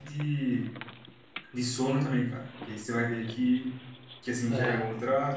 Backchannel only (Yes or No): Yes